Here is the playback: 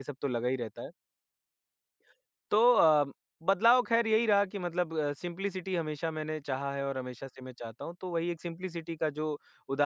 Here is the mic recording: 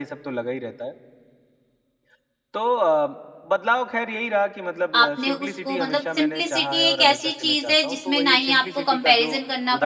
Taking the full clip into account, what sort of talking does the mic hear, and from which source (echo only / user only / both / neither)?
both